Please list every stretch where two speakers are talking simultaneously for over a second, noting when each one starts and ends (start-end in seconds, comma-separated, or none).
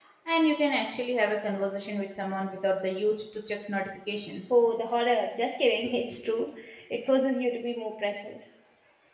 none